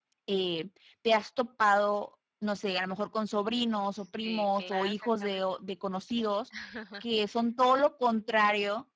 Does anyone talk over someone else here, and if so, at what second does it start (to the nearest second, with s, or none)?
4 s